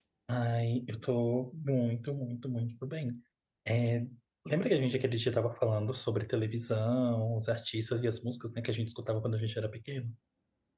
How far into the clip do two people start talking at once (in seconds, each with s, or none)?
none